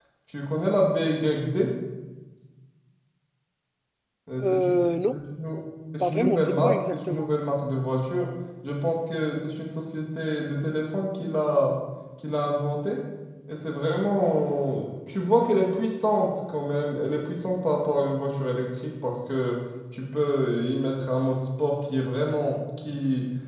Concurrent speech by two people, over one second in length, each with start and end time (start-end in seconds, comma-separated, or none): 6.0-7.3